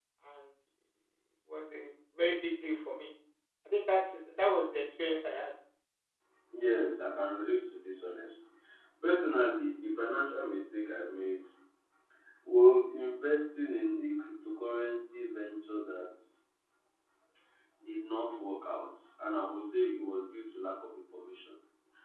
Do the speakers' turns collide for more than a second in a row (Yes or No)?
No